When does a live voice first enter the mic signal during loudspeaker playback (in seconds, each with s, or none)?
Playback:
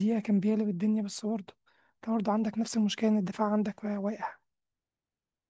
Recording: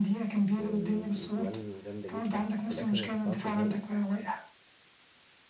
0.5 s